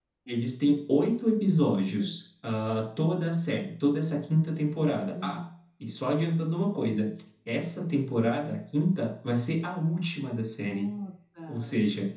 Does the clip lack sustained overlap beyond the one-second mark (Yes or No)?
Yes